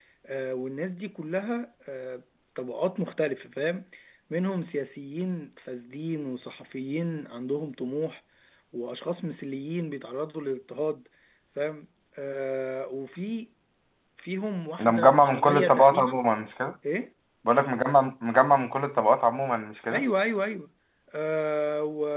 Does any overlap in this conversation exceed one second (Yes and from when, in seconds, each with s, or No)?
Yes, from 14.8 s